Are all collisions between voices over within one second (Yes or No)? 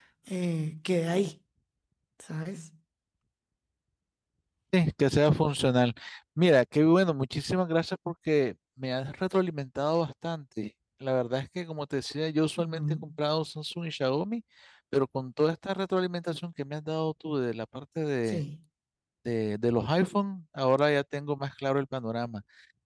Yes